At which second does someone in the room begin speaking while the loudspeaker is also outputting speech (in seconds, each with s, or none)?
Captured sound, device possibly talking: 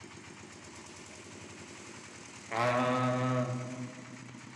2.5 s